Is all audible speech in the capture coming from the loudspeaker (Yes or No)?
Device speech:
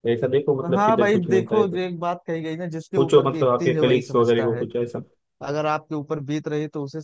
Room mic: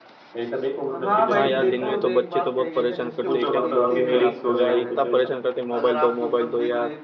No